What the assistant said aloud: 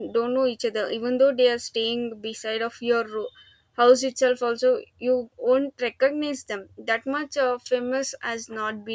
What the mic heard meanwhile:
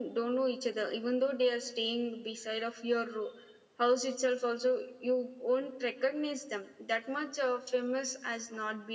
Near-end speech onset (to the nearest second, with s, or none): none